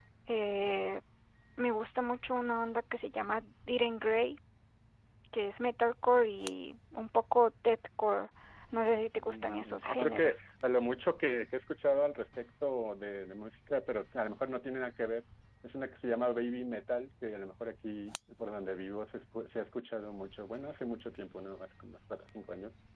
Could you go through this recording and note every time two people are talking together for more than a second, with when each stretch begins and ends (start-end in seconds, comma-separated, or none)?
9.2-10.4